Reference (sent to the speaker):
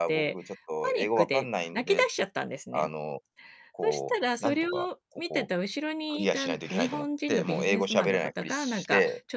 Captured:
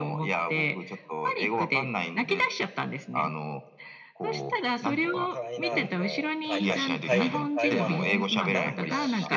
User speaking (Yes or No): Yes